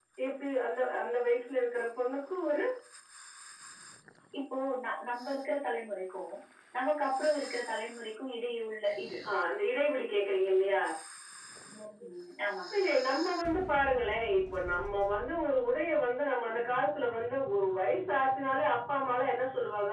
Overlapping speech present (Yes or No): No